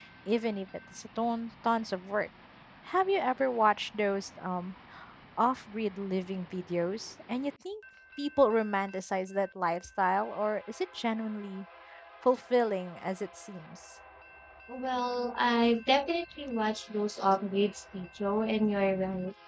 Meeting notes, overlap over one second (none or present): none